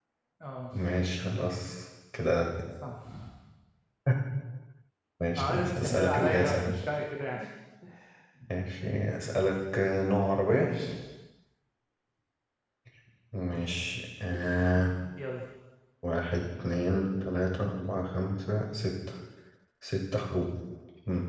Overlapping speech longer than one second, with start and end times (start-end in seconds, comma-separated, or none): 5.4-6.8